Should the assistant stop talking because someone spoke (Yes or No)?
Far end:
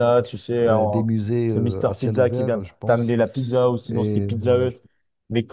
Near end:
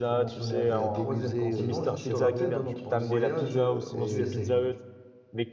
Yes